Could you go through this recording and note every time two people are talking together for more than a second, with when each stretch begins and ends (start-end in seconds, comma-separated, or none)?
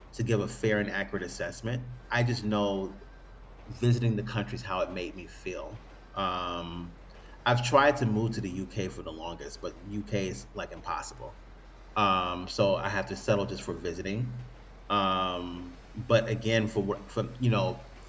none